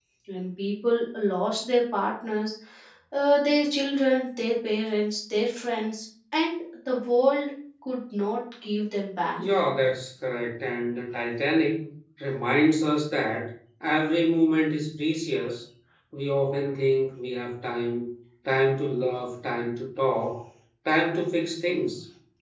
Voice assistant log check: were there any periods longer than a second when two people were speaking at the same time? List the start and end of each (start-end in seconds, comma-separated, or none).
none